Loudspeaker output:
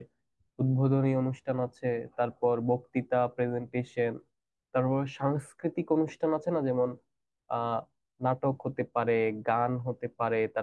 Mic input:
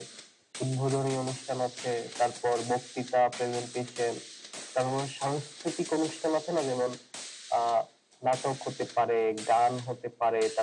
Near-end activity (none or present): none